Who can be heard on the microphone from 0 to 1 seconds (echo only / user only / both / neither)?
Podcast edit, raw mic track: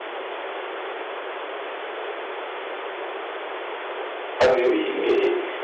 neither